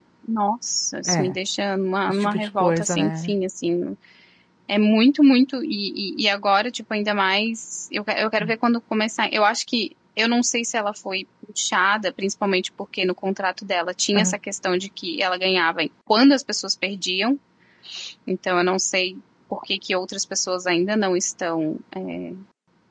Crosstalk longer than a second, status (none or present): present